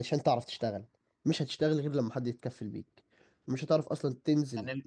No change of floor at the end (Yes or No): Yes